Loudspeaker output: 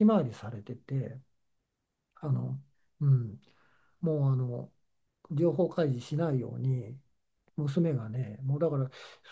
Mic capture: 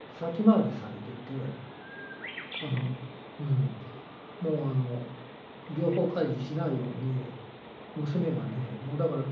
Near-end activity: none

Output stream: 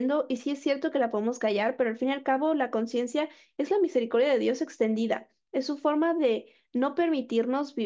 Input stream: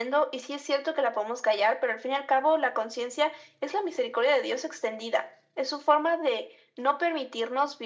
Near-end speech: none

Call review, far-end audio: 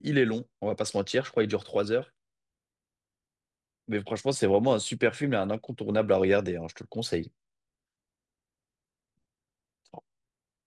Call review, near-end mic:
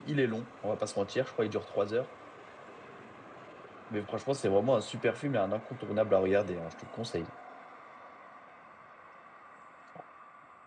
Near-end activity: none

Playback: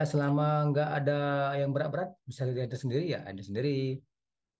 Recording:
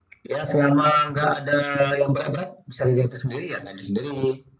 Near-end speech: none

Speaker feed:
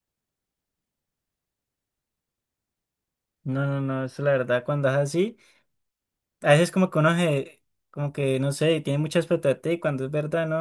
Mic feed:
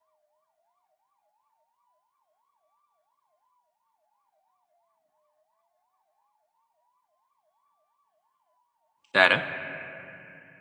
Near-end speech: present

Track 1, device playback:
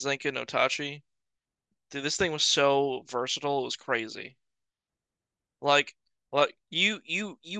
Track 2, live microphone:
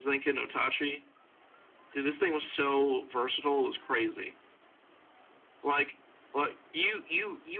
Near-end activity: none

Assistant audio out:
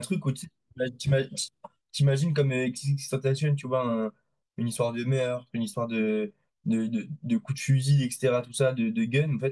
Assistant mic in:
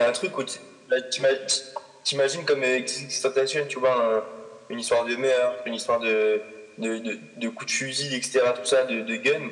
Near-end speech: none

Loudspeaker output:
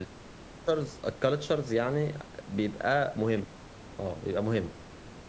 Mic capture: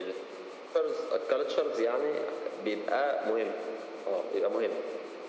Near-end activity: none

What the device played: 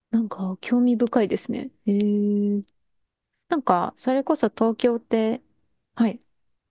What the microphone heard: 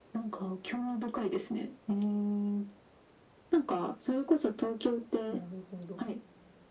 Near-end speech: present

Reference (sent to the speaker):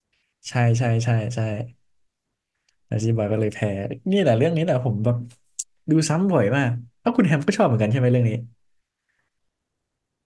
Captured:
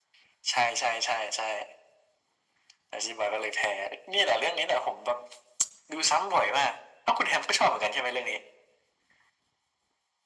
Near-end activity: none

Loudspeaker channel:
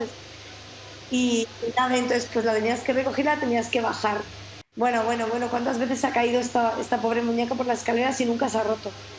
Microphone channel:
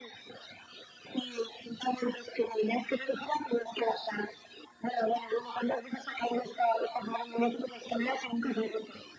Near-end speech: none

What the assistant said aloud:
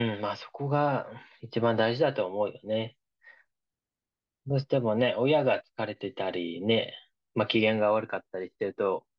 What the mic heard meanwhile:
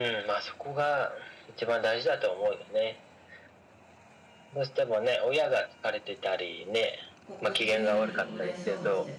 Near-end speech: present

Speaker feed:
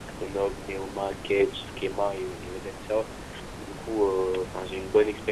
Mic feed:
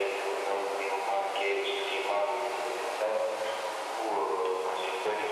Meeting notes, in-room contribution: none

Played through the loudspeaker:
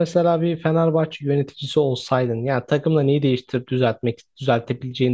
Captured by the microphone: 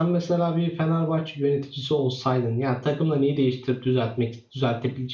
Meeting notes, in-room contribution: none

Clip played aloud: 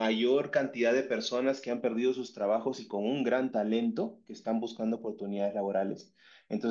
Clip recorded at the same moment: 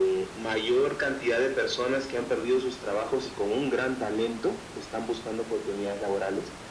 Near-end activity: none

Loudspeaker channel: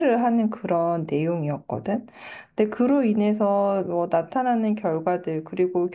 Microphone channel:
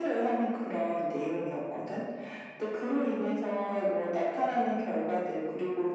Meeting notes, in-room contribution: none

